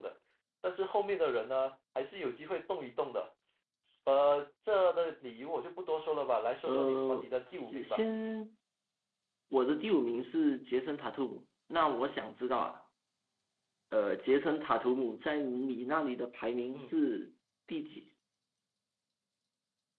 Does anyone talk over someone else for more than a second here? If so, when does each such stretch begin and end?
6.7-8.1

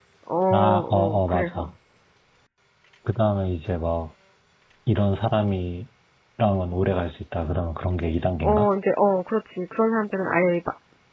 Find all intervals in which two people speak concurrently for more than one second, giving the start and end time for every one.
0.5-1.7

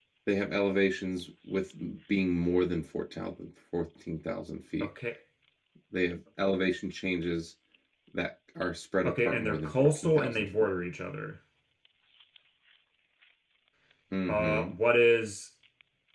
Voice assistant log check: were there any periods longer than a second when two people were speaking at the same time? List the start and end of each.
9.0-10.5

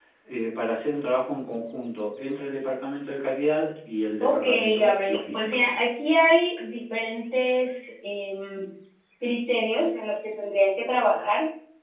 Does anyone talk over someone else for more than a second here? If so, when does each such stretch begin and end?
4.2-5.7

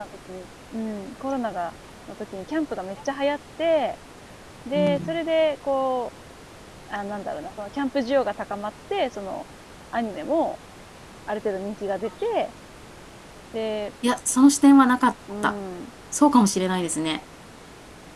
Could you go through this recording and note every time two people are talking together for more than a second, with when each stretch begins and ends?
none

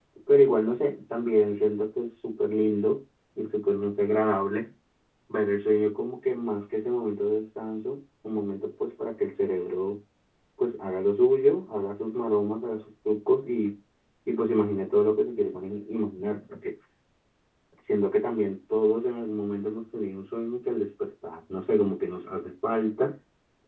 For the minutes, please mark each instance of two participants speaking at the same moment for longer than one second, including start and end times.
none

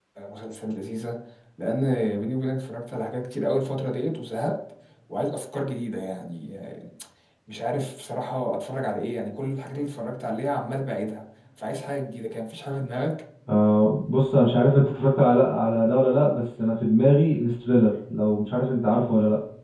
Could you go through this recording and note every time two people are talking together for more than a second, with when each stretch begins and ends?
none

